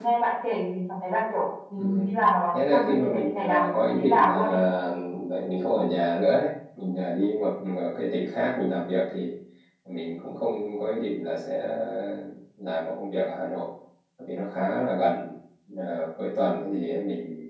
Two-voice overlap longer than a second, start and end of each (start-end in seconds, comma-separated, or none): 2.5-4.4